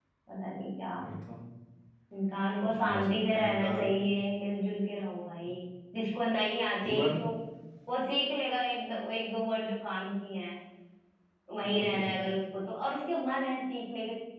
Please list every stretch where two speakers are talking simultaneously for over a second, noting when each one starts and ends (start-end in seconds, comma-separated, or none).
2.6-4.0